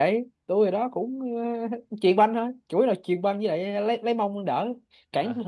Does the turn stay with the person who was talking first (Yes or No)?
No